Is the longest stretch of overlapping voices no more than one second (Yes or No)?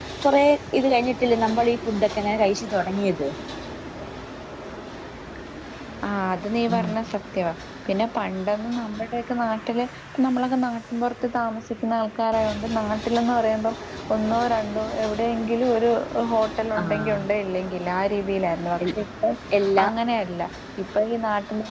Yes